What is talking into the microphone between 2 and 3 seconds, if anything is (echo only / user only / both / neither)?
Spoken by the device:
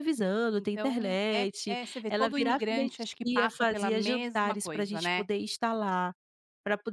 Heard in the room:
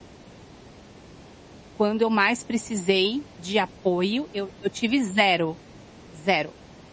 user only